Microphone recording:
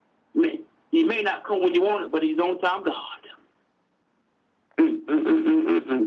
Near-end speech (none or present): none